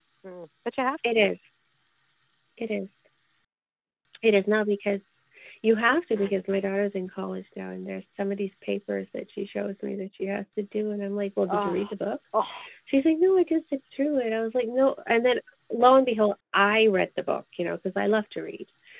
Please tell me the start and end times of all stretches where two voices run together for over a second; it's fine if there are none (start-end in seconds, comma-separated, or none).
none